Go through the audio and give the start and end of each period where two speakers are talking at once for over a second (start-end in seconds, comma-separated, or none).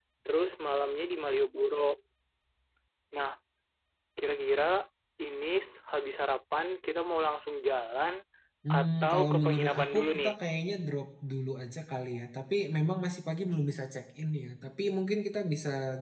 8.8-10.3